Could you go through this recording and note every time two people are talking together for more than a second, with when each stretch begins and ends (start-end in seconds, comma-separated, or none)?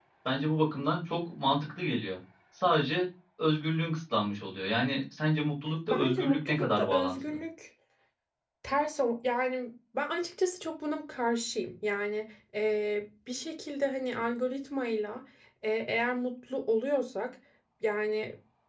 5.9-7.4